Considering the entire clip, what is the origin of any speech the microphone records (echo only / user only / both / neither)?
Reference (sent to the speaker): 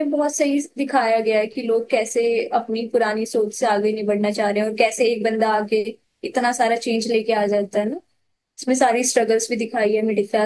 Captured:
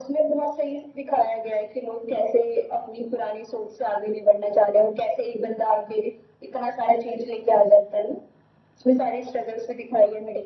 echo only